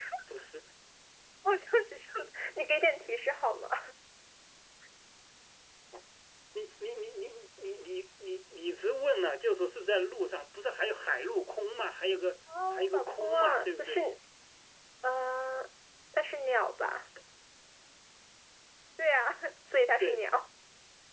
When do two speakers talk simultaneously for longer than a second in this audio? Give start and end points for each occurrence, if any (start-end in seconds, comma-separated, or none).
12.7-14.0